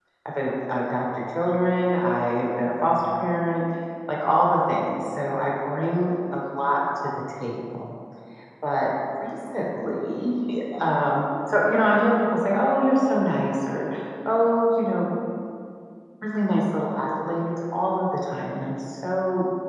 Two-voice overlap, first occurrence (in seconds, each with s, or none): none